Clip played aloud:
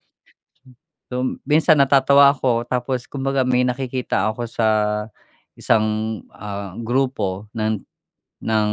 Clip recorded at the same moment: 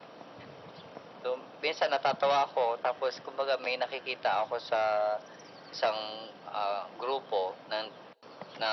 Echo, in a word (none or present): present